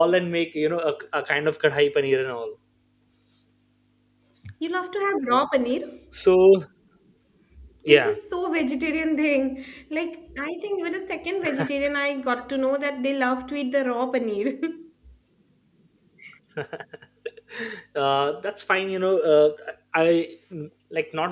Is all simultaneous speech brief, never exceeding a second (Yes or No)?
Yes